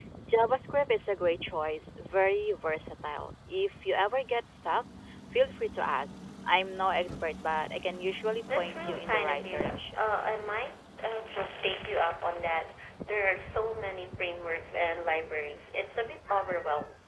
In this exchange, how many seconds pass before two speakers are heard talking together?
8.5 s

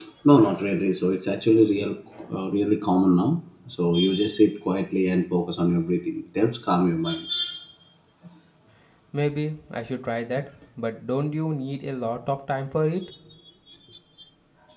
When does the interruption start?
none

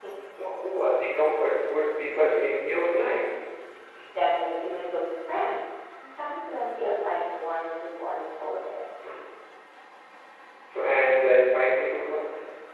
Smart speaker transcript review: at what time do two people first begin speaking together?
none

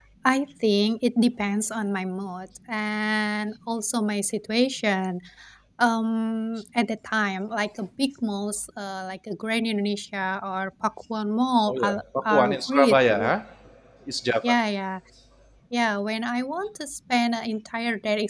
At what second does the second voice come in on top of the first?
11.7 s

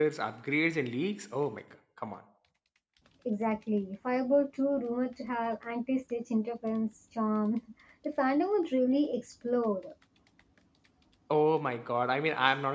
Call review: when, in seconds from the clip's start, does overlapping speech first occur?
none

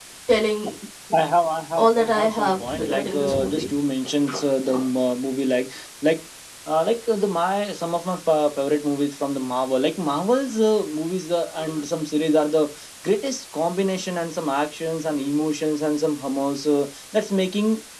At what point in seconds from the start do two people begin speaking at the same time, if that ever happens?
1.8 s

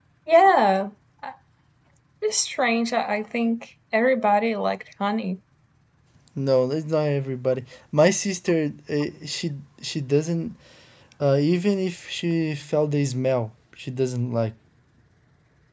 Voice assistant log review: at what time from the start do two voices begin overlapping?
none

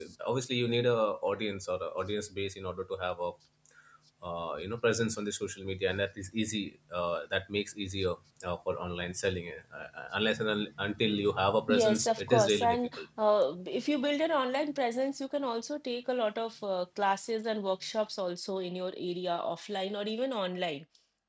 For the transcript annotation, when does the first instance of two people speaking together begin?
11.7 s

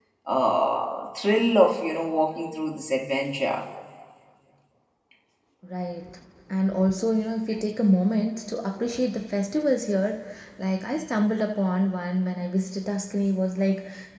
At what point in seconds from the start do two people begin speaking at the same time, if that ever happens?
none

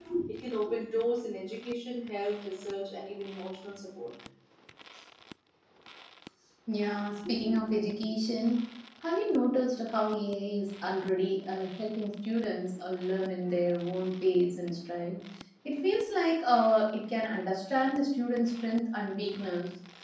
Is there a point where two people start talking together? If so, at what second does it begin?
none

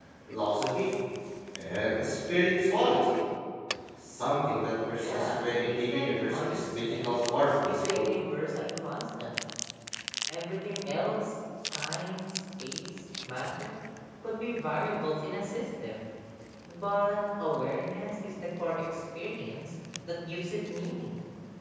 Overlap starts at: 5.0 s

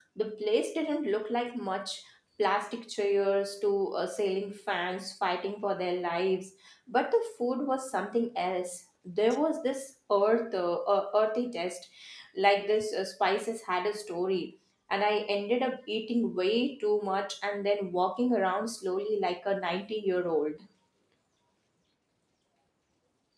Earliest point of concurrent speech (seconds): none

